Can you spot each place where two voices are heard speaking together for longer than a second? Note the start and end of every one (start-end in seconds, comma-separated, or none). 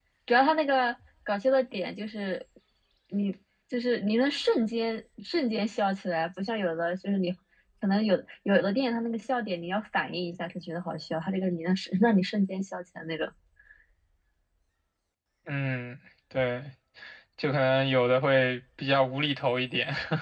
none